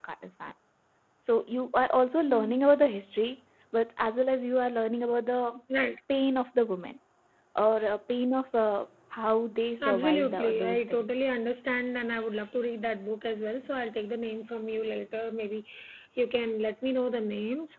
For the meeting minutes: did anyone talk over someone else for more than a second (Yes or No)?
Yes